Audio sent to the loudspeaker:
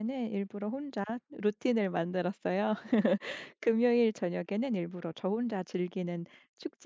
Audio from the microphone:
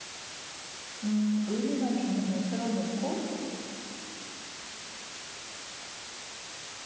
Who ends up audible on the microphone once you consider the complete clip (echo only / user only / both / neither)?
user only